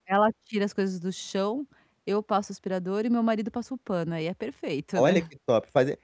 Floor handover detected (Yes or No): Yes